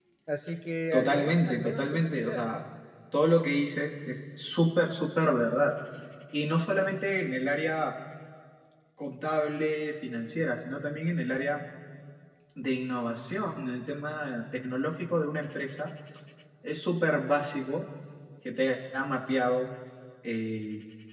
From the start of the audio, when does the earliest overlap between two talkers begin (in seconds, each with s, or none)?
0.9 s